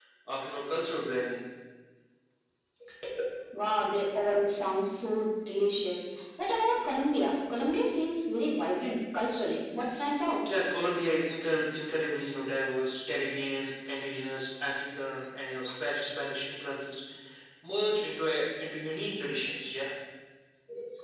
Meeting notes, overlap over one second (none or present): none